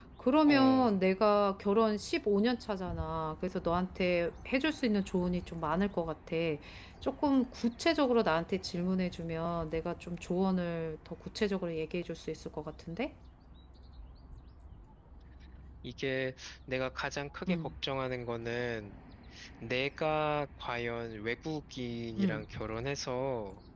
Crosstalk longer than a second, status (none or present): none